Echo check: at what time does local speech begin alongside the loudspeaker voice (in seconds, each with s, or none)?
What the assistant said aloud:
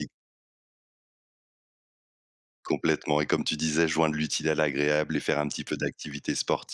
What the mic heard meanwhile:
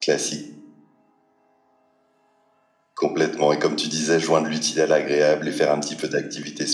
none